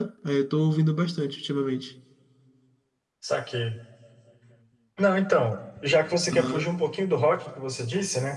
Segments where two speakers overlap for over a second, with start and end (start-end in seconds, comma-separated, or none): none